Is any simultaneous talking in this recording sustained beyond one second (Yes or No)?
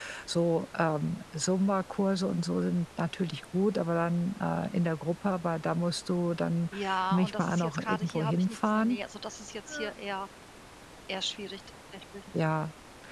Yes